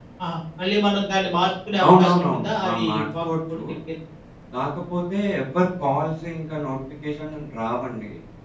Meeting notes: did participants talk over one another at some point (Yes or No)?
Yes